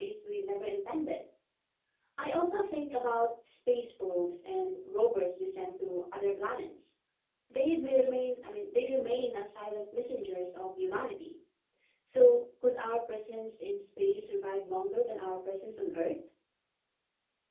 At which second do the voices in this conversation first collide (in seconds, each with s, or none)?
none